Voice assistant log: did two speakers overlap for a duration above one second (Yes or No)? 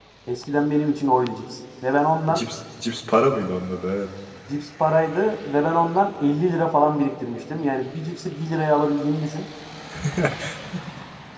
No